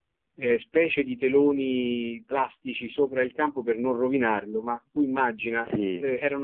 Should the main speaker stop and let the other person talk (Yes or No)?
No